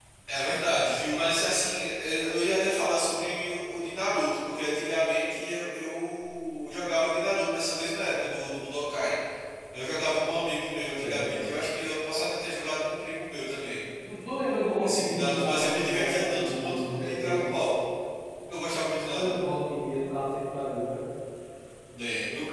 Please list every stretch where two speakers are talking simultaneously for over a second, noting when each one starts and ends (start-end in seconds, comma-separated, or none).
14.8-17.5